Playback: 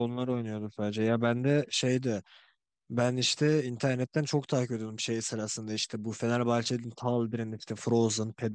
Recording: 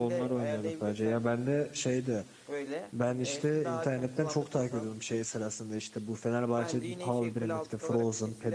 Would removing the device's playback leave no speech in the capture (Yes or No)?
No